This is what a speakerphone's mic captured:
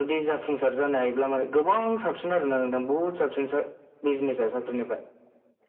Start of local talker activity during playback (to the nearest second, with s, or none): none